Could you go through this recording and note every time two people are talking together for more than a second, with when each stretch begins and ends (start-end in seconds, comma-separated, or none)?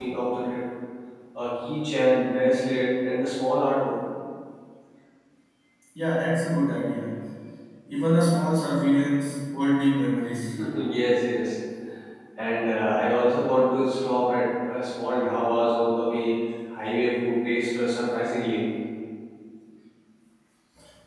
none